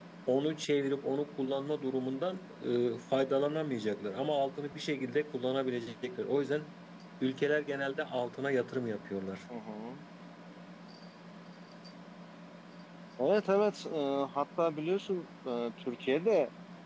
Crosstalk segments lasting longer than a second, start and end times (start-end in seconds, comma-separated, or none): none